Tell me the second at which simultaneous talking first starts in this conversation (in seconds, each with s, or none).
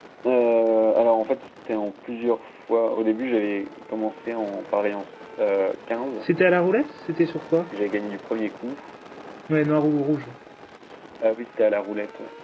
none